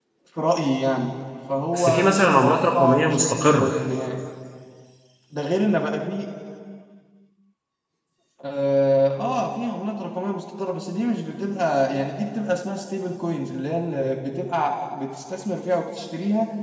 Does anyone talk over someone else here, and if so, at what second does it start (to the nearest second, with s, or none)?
2 s